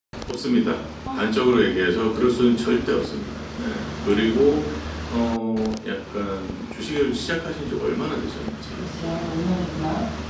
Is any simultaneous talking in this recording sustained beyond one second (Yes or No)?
No